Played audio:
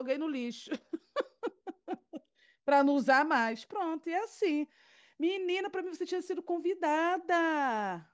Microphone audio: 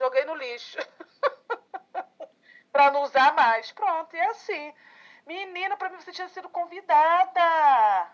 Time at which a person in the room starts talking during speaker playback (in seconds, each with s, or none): none